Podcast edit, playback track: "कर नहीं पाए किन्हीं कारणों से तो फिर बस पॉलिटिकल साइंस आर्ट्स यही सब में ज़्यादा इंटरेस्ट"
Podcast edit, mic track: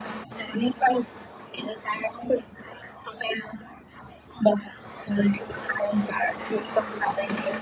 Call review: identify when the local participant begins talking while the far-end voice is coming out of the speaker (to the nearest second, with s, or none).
none